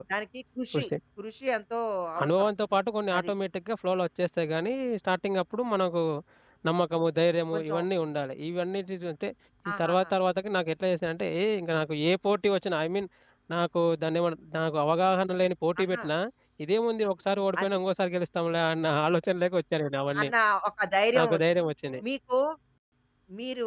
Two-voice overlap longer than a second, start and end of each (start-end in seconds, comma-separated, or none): none